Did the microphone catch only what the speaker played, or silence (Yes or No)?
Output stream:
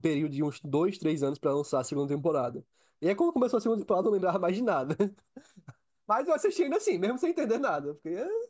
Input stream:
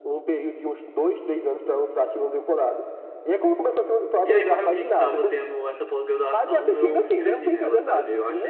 No